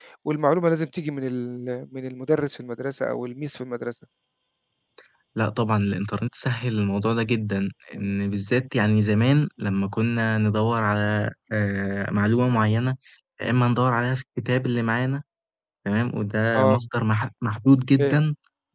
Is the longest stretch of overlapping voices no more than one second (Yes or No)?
Yes